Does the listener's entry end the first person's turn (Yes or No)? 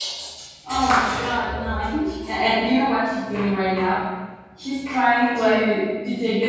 No